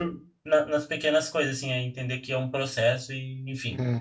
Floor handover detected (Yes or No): Yes